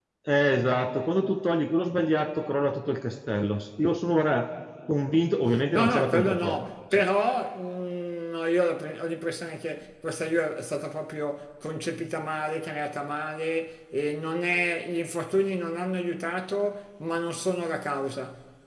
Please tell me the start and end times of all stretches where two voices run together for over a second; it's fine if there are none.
5.7-7.0

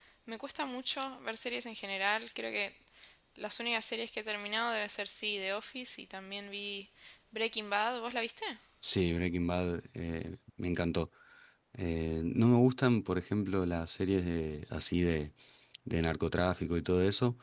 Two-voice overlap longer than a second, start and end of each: none

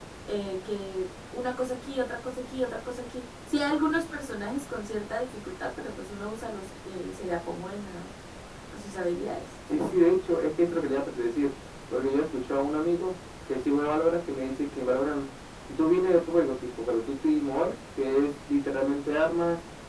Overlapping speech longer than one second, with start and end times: none

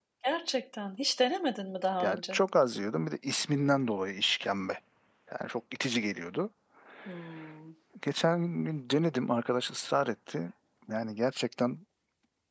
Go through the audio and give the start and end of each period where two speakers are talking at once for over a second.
none

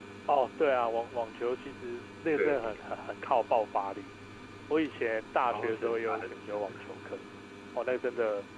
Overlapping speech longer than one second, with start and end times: 5.5-6.8

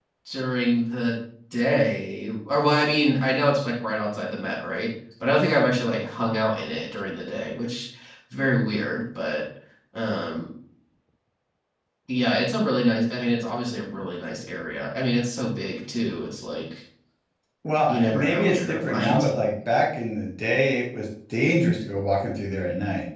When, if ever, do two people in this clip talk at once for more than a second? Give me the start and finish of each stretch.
17.9-19.3

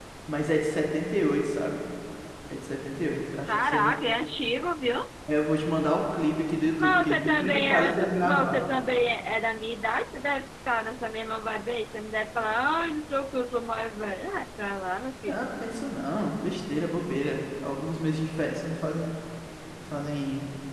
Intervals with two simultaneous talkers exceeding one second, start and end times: 6.8-8.7

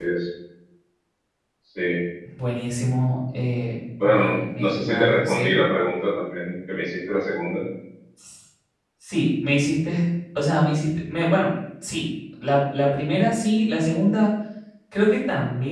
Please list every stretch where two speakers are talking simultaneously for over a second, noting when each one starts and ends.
4.0-5.5

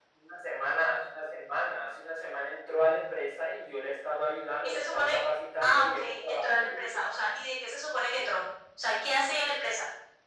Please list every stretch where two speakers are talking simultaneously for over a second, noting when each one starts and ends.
5.6-7.0

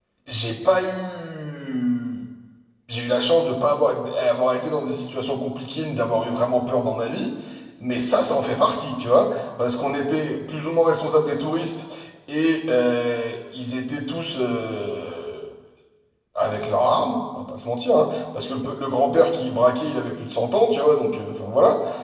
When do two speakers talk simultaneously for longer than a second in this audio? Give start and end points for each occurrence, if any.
none

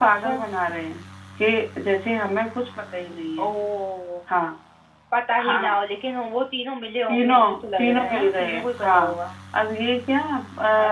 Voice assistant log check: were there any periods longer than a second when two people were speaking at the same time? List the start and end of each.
7.1-9.1

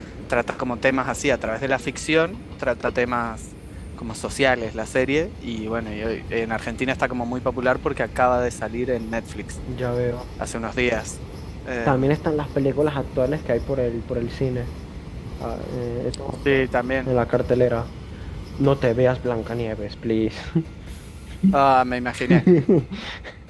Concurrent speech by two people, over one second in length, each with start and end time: none

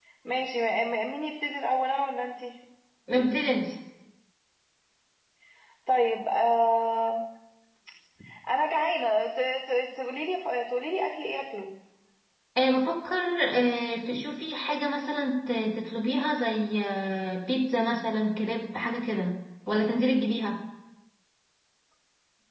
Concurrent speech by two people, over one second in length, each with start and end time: none

